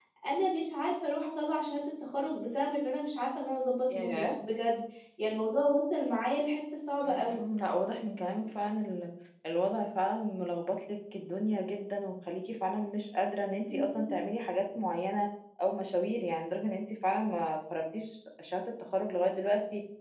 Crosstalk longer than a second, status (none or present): none